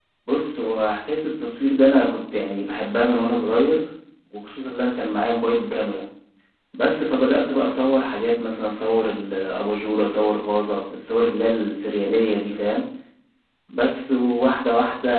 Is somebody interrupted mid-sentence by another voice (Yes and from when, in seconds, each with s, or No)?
No